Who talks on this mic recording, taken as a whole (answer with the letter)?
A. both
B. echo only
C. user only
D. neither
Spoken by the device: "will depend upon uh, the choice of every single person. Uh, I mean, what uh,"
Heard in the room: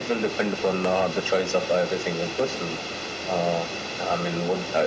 B